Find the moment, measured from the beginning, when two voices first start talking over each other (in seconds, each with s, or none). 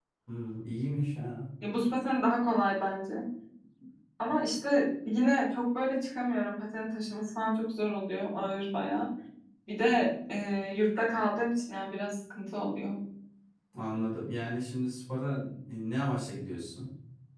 none